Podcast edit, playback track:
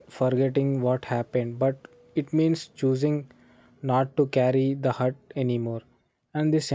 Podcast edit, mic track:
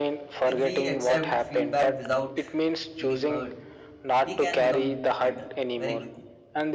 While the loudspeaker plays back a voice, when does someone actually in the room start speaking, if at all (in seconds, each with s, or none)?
0.4 s